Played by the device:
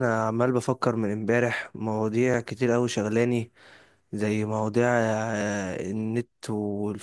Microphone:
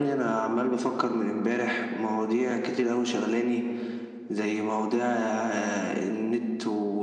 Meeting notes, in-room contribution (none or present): none